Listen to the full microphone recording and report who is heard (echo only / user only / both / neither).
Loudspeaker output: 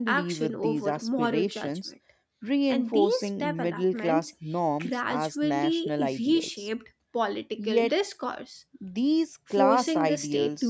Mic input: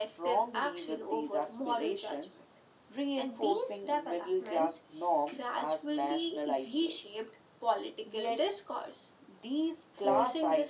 echo only